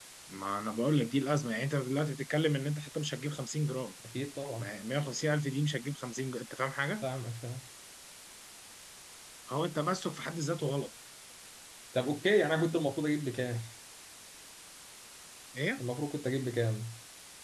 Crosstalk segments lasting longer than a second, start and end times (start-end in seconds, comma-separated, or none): none